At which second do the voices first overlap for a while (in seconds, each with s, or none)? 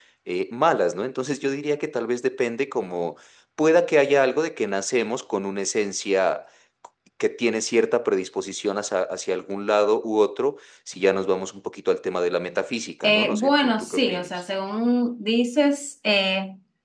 13.0 s